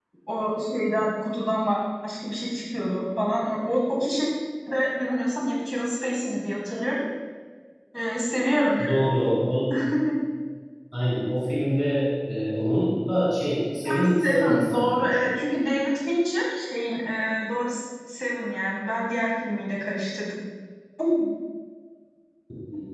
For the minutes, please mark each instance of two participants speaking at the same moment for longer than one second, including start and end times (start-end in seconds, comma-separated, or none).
13.9-15.3